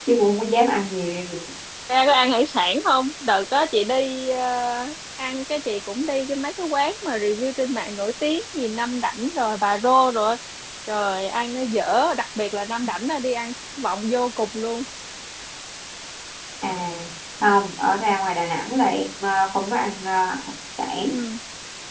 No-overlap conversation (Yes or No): Yes